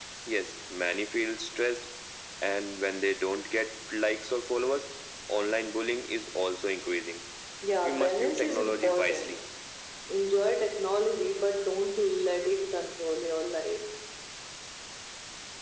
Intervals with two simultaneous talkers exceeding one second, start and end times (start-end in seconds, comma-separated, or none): 7.8-9.4